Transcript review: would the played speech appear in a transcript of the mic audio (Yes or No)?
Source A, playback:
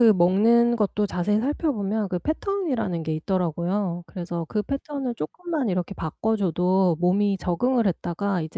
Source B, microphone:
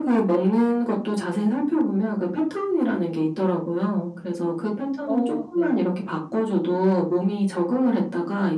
Yes